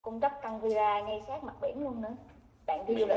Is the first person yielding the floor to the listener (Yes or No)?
No